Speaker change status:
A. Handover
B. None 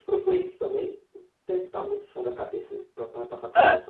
A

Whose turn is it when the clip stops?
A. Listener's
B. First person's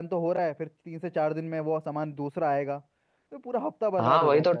A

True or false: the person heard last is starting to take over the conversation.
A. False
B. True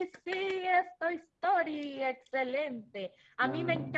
A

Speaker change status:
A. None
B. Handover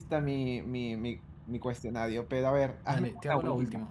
B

